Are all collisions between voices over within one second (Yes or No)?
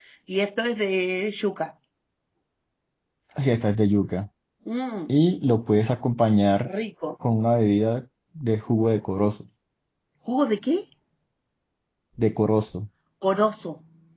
Yes